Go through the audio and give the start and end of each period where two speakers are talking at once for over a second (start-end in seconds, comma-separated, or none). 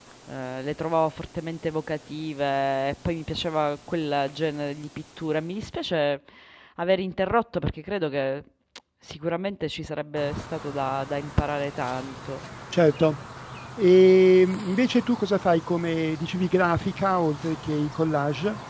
none